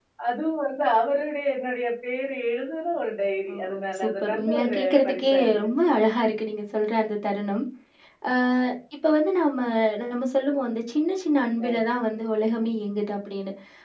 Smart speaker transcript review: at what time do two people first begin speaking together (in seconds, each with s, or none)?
3.5 s